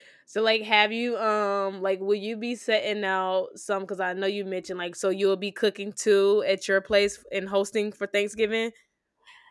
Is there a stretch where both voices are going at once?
No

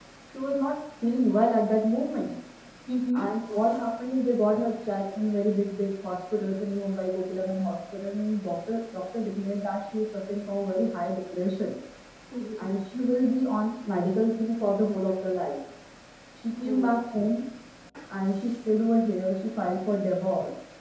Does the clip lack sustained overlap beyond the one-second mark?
Yes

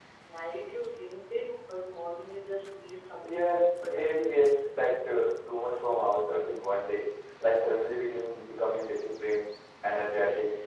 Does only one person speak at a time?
No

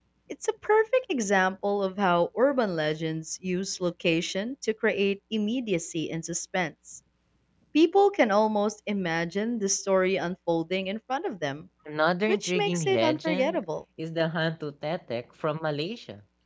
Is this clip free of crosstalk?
No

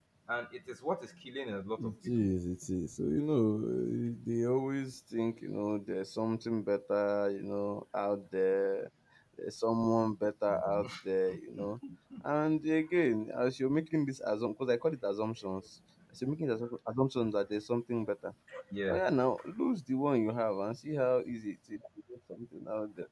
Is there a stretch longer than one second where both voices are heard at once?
No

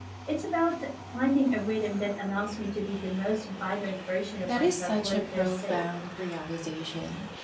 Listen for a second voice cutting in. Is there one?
Yes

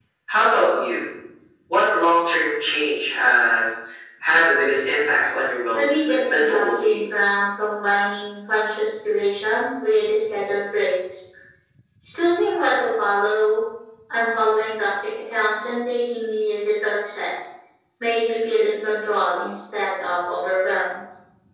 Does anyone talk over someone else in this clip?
Yes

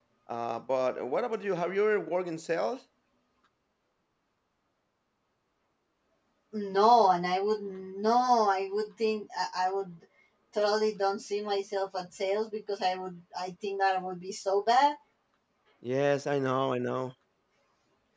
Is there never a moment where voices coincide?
Yes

